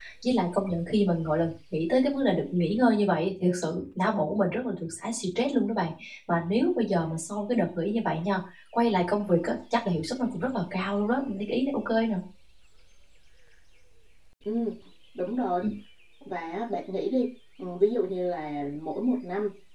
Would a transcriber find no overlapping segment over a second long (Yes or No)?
Yes